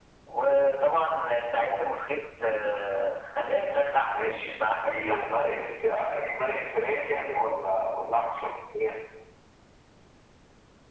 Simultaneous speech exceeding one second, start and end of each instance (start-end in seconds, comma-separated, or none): 4.1-5.4